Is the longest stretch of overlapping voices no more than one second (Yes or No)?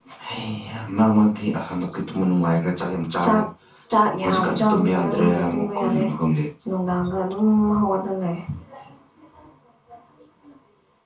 No